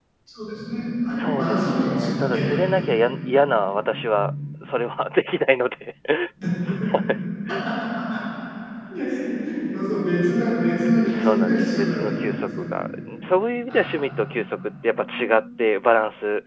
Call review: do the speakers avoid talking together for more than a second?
No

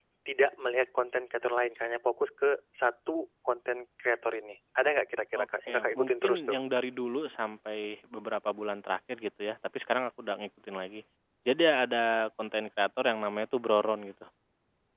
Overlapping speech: Yes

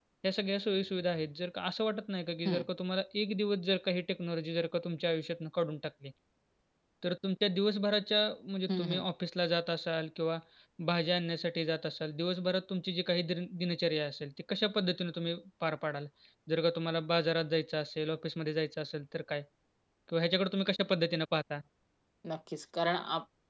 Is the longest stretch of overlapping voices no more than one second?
Yes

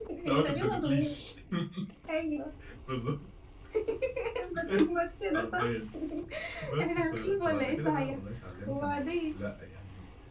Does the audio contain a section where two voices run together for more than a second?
Yes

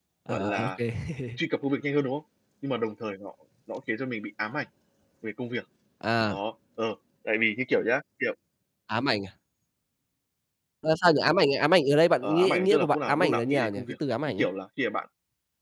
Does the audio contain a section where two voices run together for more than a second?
Yes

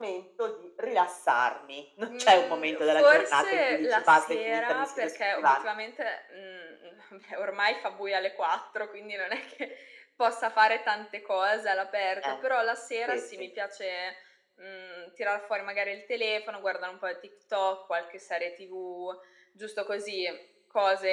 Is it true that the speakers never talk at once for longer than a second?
No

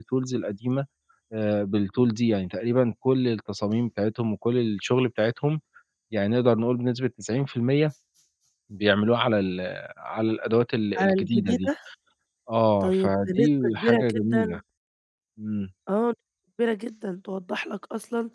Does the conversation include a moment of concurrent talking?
Yes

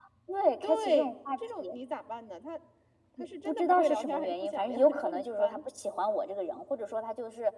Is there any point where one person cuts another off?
Yes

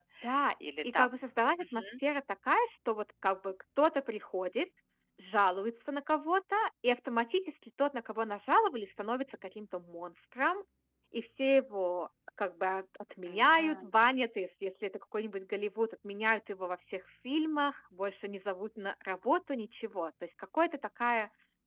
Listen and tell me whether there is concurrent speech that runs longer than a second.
No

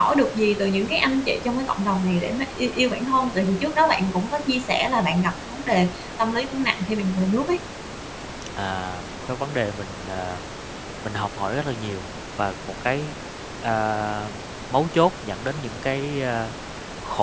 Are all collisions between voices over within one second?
Yes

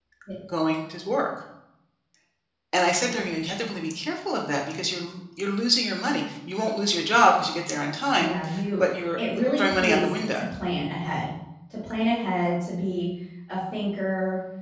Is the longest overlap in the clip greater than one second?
Yes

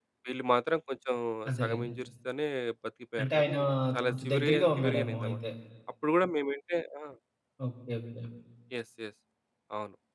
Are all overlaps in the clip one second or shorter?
No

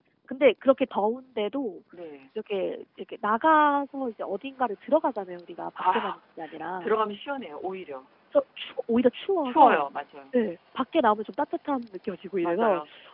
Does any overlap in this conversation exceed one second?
No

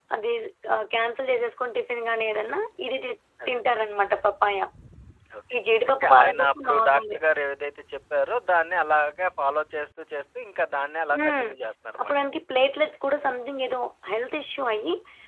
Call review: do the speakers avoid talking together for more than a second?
No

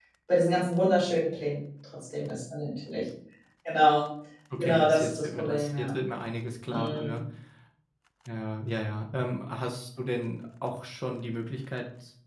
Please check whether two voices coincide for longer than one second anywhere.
Yes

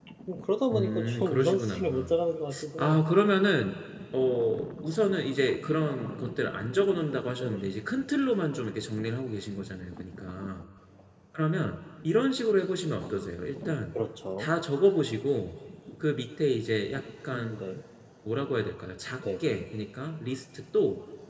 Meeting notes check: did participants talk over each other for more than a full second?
Yes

